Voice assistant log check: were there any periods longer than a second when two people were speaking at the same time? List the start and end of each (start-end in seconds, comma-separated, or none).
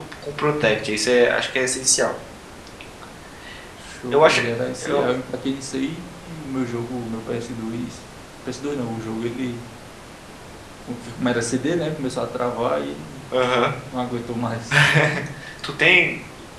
none